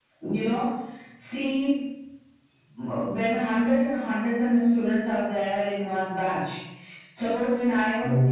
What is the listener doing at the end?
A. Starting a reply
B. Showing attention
B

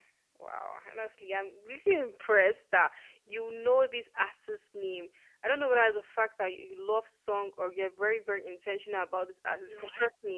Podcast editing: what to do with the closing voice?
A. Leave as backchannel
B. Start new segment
A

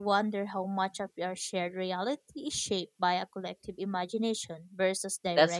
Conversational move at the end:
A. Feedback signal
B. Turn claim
B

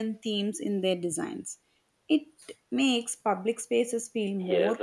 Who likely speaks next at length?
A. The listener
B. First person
A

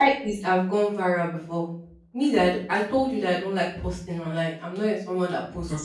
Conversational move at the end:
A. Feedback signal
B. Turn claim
B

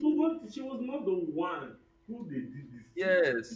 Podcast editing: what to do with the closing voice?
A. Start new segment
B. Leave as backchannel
A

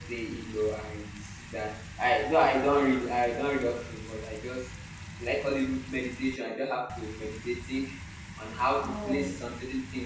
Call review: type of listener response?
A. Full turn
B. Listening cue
B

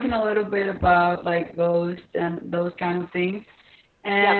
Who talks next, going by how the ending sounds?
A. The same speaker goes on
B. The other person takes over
A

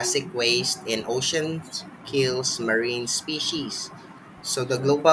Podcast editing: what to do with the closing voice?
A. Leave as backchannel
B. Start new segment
A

